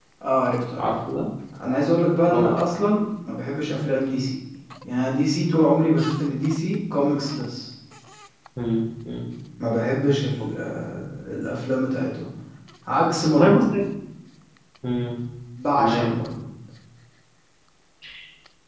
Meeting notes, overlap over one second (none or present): none